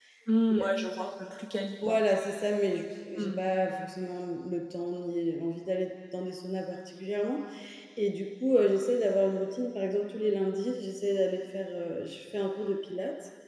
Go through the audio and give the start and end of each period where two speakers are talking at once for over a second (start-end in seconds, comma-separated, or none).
none